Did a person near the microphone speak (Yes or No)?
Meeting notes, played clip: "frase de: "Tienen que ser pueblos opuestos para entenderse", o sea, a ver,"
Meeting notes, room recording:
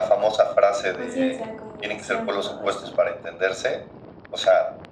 Yes